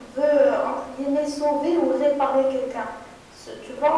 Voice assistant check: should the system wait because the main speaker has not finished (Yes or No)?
Yes